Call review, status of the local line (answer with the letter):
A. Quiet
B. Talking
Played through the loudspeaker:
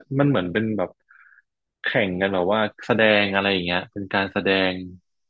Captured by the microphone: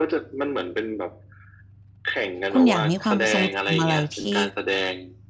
B